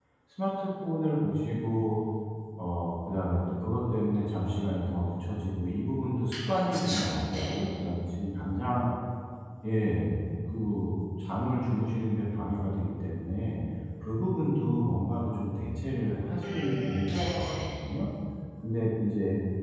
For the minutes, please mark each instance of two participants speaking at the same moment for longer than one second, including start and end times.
6.5-7.7, 16.4-17.7

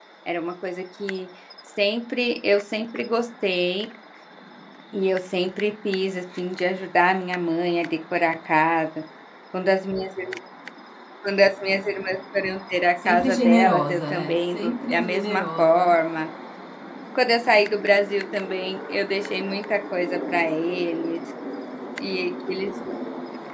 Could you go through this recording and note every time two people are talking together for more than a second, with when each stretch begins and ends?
13.1-15.9

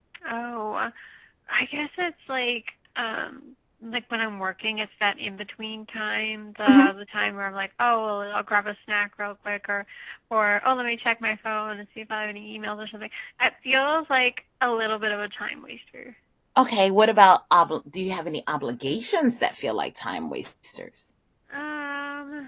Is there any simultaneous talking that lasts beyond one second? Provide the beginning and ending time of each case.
none

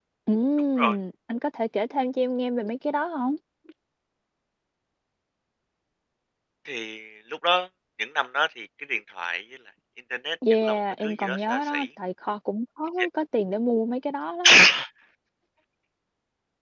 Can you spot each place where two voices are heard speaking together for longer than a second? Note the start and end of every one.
10.6-11.9

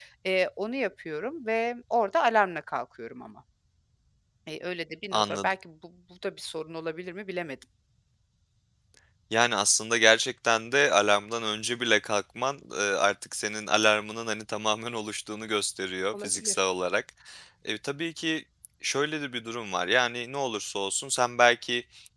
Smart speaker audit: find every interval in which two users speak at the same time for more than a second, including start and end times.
none

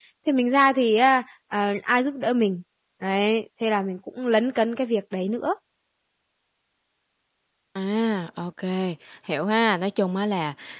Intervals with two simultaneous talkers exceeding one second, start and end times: none

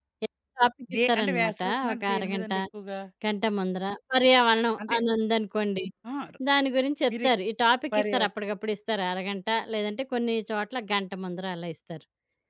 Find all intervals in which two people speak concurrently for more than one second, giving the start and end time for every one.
0.9-2.5

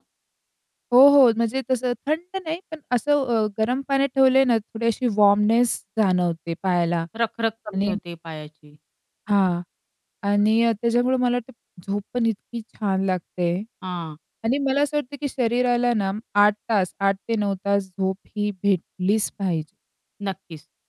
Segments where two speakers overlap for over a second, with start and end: none

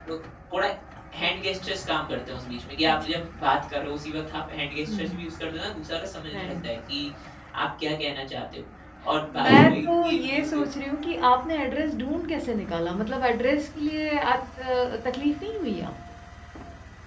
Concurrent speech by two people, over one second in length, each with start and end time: 9.4-10.6

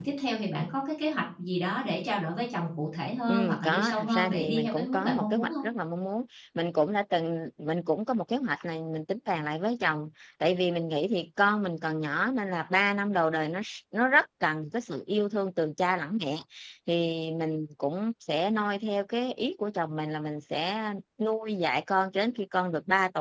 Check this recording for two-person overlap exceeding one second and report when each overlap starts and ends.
3.3-5.6

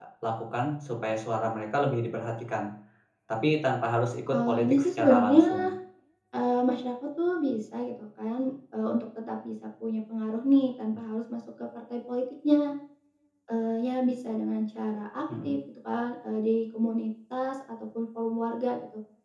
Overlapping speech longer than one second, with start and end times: 4.3-5.7

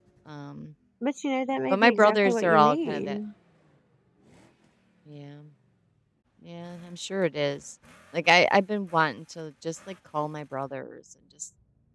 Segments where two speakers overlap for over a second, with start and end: 1.7-3.2

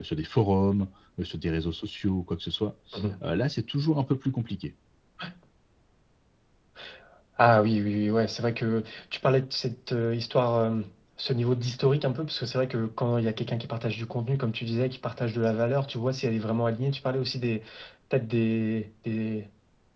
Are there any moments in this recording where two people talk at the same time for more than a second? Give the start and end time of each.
none

